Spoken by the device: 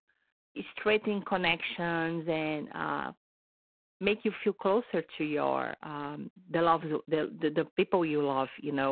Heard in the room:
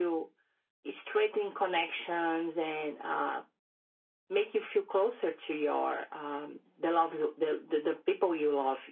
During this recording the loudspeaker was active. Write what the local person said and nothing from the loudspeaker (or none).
none